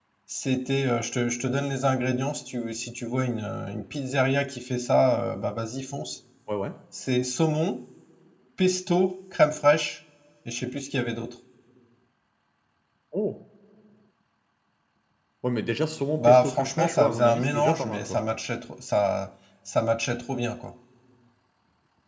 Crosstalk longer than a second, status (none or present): present